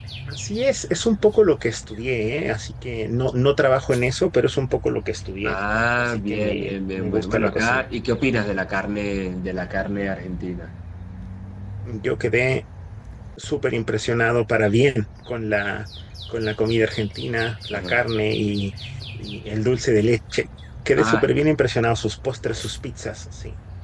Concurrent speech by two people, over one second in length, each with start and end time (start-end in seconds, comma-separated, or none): 6.0-7.8